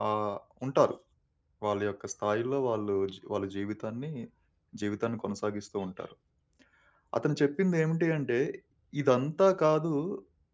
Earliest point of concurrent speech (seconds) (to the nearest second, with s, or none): none